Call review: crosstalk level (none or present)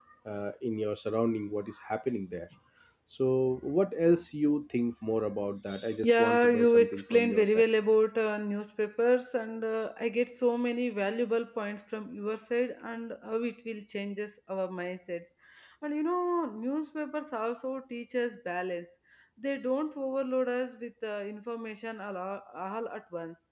present